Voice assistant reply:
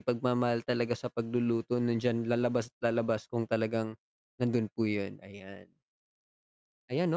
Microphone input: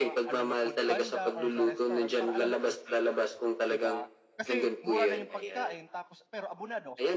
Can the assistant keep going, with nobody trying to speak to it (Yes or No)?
No